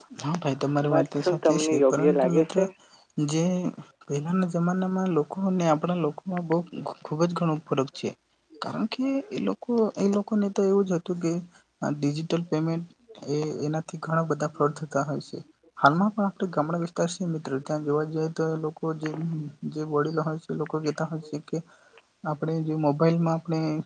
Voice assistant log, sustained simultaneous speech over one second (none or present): present